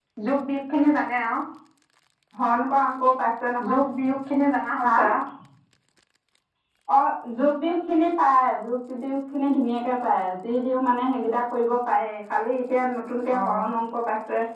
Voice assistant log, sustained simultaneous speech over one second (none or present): none